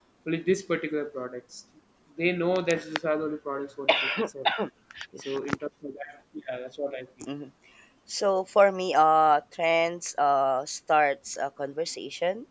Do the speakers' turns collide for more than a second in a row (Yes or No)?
No